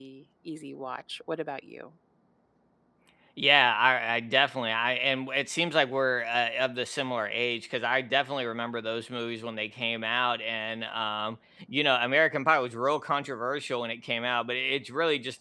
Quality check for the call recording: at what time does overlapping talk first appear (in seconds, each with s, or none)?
none